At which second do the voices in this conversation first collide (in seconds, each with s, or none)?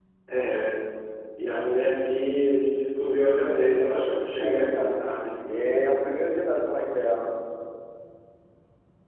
3.5 s